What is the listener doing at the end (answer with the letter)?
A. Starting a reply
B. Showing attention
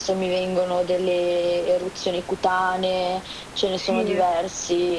B